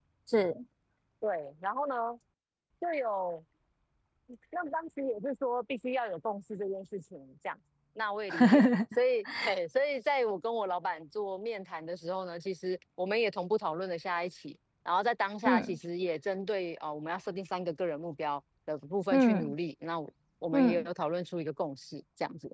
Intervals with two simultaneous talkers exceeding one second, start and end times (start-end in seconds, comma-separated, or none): none